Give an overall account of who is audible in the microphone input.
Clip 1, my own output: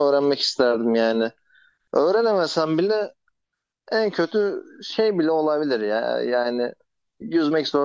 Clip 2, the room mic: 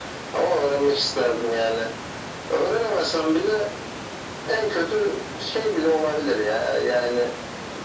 echo only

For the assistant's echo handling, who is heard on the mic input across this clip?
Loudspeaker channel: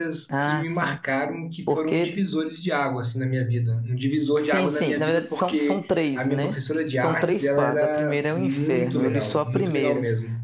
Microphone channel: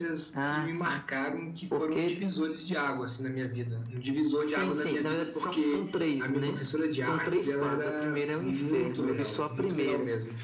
echo only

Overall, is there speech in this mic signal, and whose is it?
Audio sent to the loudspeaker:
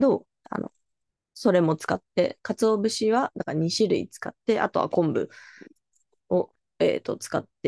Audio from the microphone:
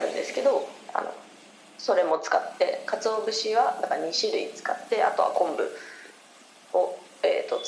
echo only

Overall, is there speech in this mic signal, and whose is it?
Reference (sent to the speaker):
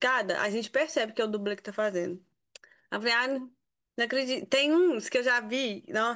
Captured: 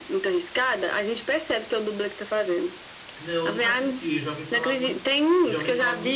both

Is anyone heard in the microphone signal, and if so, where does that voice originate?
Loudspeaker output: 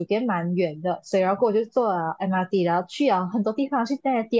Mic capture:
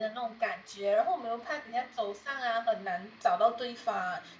user only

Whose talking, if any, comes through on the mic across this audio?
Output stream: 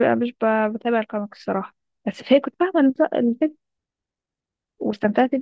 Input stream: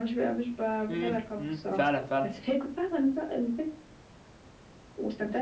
both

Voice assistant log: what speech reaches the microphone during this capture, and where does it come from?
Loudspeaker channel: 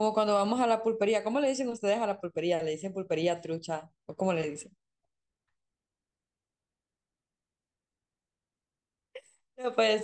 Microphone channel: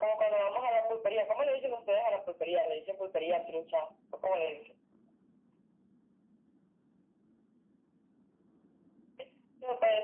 echo only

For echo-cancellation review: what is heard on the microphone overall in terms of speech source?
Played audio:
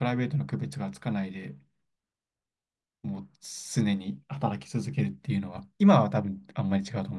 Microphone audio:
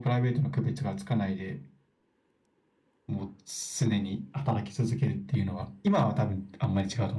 echo only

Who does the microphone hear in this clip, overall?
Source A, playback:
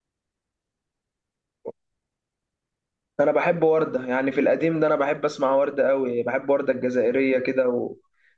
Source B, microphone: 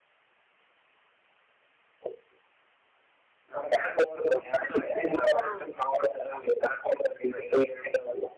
both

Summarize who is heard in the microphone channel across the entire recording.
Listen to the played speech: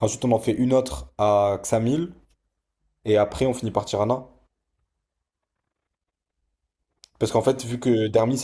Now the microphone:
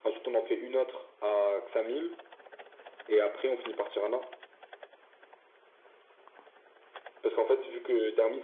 echo only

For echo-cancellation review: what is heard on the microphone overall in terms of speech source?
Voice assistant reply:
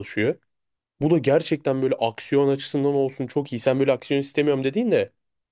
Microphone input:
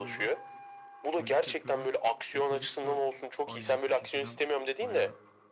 both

